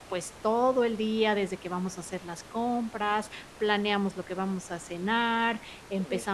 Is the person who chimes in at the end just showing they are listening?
Yes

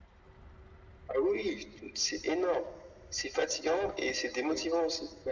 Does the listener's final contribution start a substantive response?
Yes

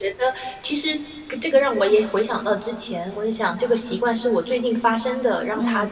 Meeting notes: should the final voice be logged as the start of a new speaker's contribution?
No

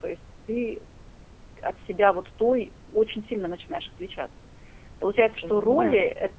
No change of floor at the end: Yes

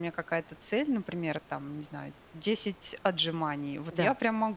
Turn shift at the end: Yes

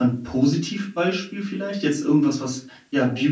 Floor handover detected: No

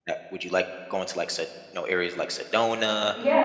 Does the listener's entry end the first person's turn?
Yes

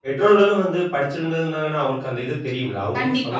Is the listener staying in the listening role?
No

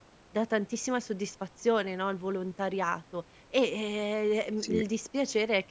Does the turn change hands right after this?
No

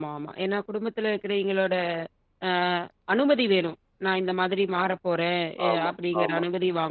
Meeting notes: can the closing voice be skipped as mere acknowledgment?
Yes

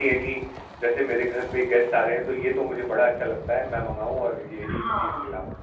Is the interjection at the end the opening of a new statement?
Yes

